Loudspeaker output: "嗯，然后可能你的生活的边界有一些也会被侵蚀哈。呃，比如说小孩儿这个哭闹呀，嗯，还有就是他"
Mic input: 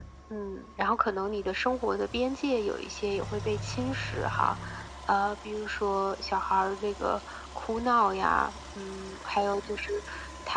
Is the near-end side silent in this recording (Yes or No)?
Yes